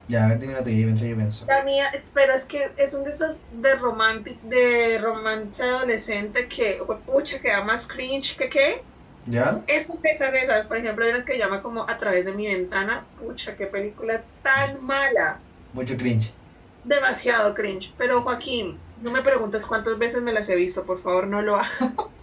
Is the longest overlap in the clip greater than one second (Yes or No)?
No